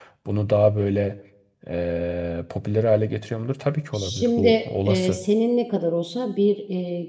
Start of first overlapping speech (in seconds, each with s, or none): 3.9 s